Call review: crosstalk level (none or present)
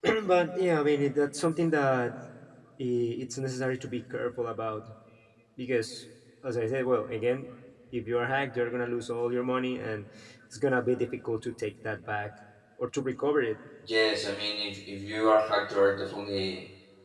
none